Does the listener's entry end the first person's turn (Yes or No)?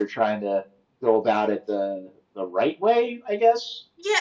Yes